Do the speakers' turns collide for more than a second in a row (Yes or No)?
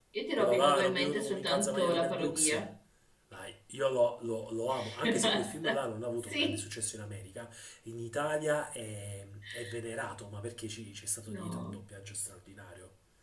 Yes